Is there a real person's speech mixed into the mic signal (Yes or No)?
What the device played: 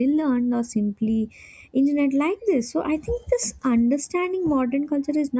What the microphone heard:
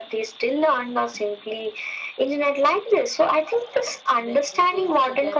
Yes